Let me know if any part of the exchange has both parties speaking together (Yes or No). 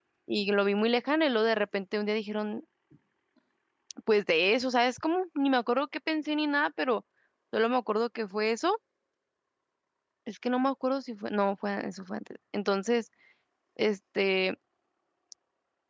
No